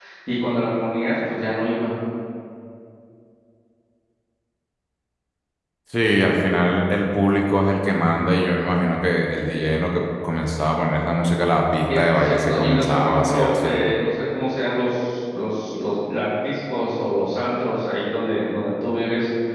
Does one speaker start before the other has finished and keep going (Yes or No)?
Yes